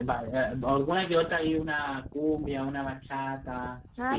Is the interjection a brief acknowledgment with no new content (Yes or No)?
No